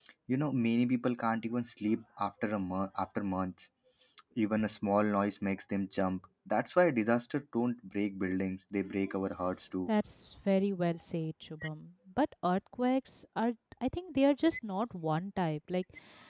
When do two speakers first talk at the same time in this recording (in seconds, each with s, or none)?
none